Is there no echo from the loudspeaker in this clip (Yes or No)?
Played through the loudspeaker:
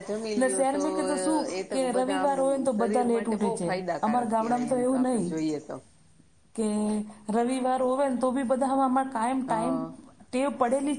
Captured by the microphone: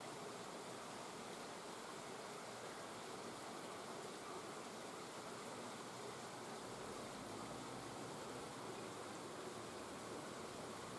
Yes